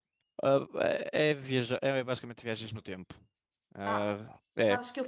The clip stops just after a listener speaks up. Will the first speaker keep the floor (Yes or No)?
No